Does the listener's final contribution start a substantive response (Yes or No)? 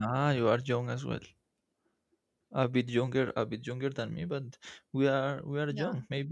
No